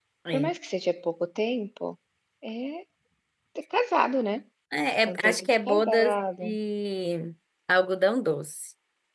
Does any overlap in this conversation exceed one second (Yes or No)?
Yes